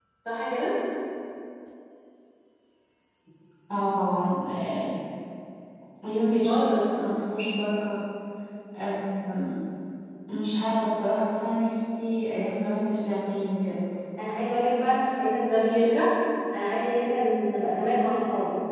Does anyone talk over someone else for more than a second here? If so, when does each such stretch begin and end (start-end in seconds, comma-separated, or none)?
none